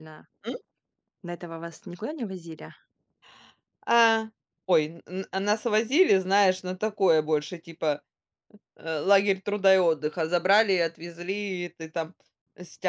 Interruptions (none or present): none